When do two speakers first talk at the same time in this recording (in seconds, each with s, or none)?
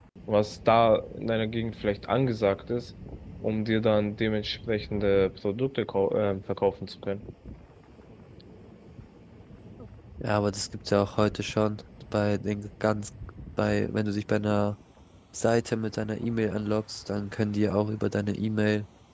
none